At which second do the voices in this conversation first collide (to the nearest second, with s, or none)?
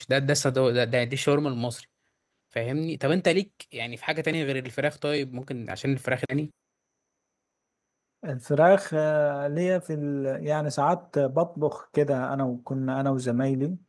none